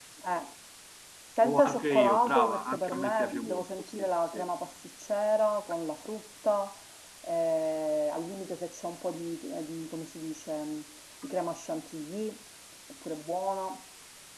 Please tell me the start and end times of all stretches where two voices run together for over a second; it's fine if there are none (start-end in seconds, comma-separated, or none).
1.4-4.5